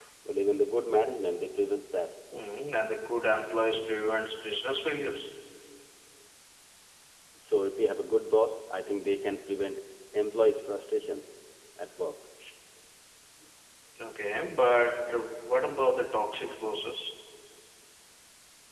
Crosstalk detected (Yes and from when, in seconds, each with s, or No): No